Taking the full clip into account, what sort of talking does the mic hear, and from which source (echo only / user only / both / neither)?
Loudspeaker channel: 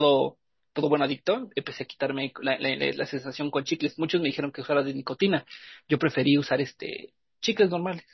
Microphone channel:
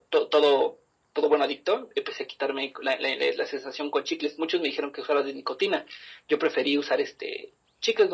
echo only